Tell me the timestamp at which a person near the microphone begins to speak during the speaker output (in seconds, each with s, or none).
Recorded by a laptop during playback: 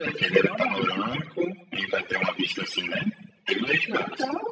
none